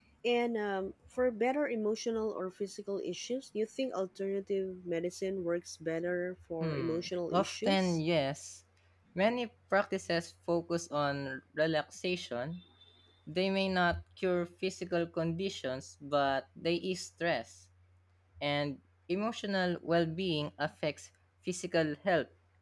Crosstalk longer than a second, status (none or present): present